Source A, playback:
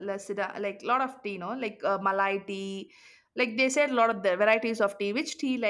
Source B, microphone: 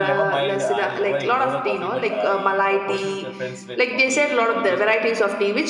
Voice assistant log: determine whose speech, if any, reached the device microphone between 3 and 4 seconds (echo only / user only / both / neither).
both